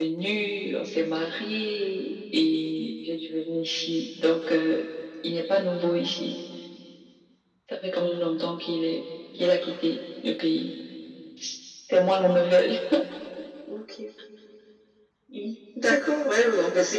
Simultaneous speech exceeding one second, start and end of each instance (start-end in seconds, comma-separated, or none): none